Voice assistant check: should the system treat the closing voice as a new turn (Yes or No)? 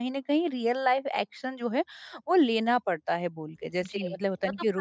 Yes